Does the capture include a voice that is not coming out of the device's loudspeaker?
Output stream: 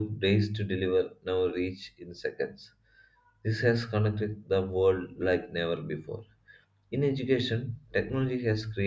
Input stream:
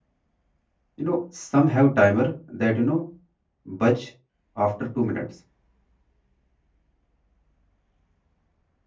Yes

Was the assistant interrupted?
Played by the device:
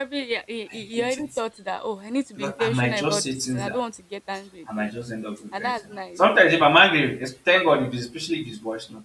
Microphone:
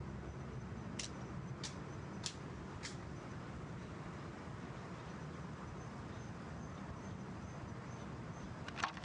No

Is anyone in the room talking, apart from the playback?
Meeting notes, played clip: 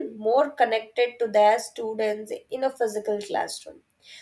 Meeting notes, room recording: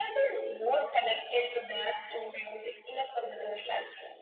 No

